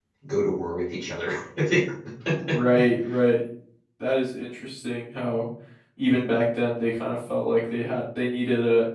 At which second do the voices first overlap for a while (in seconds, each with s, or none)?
none